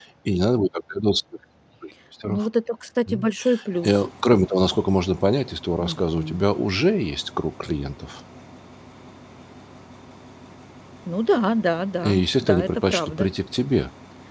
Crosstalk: present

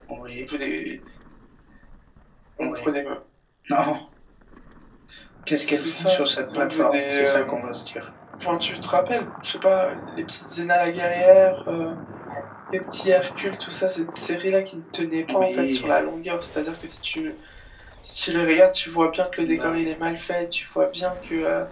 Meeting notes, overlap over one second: present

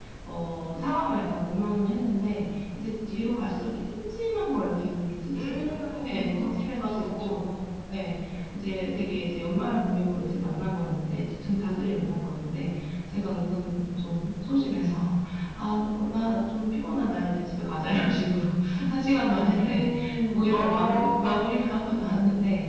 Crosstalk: present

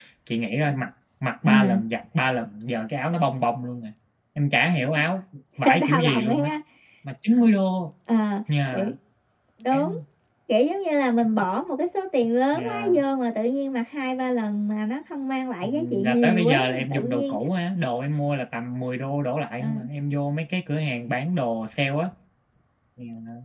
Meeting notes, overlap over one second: present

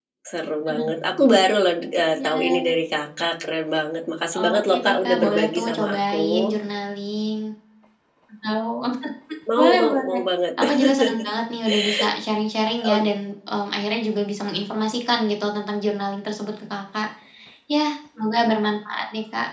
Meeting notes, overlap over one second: present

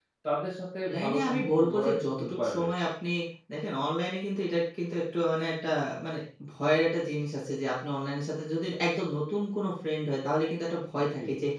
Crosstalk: present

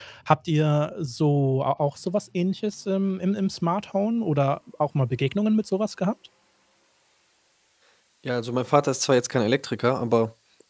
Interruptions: none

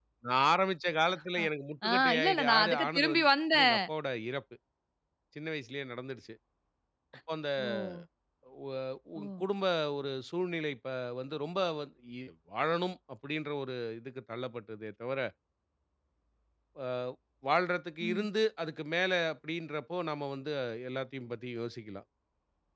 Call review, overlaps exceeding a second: present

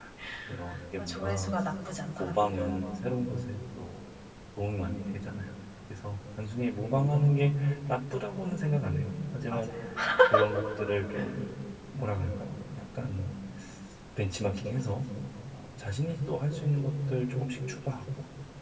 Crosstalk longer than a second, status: none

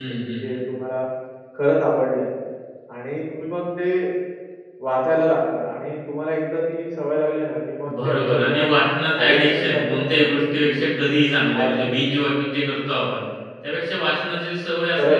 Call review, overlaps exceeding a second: present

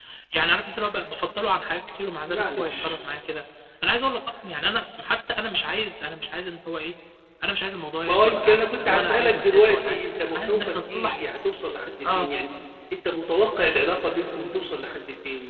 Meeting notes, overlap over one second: present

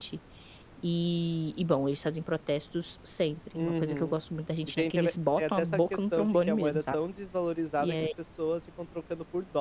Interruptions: present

